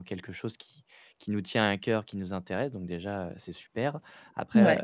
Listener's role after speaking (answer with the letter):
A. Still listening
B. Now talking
A